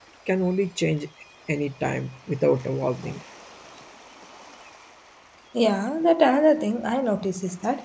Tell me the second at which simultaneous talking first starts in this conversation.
none

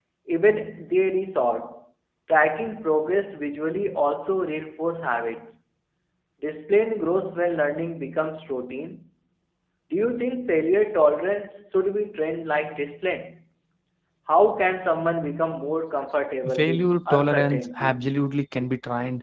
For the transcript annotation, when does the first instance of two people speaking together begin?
16 s

